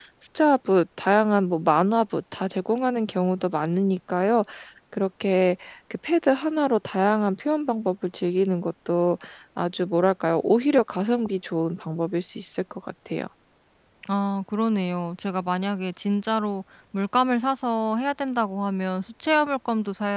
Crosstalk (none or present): none